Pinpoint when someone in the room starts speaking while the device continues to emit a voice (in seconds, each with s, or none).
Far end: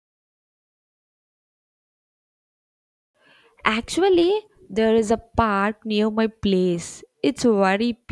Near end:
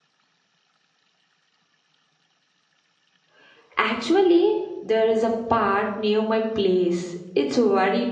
none